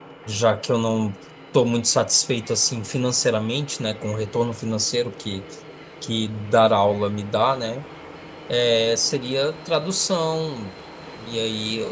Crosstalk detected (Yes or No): No